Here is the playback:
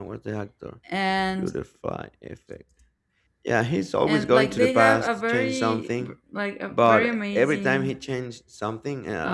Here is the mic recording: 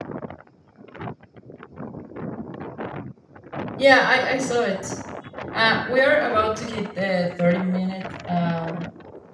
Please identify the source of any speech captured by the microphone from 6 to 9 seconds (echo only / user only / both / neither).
user only